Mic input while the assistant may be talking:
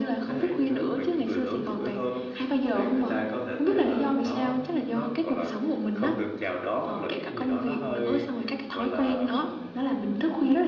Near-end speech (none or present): none